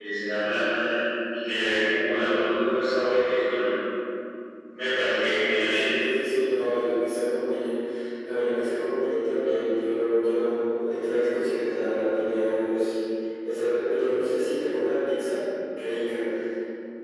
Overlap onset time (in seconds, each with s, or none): none